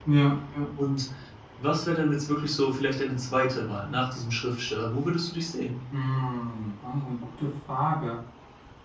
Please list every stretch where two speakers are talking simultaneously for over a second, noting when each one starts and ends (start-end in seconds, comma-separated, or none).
none